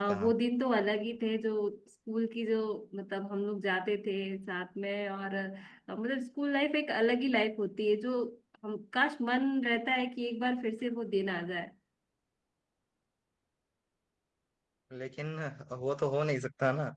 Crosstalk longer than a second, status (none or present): none